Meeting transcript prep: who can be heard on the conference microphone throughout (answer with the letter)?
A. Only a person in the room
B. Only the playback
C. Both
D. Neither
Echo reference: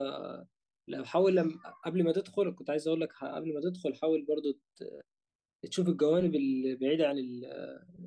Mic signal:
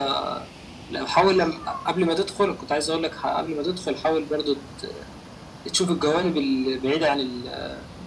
B